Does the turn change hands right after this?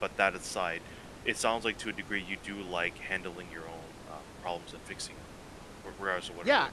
Yes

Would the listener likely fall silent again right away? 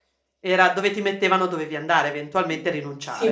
No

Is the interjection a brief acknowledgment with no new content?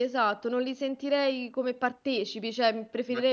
Yes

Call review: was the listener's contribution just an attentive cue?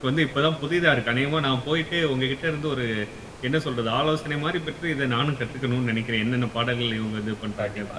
No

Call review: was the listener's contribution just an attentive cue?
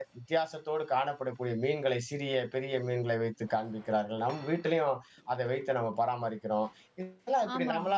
Yes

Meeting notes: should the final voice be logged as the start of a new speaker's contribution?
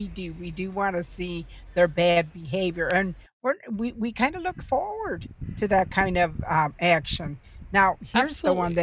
No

